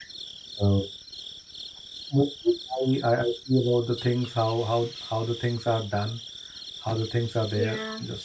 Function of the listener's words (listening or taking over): taking over